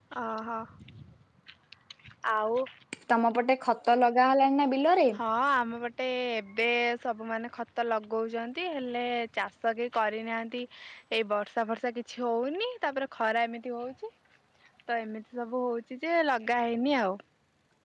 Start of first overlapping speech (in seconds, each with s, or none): none